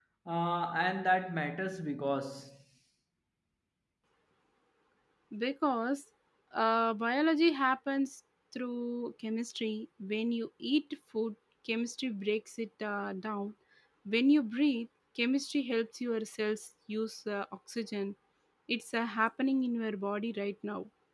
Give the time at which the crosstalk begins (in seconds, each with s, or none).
none